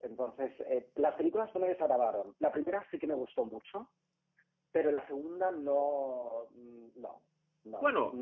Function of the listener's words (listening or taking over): taking over